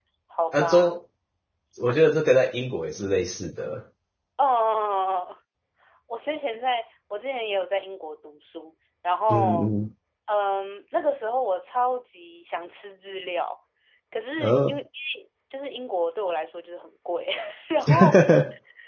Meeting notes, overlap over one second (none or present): none